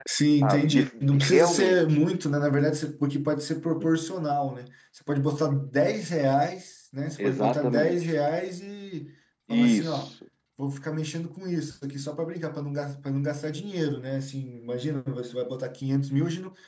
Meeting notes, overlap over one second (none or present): present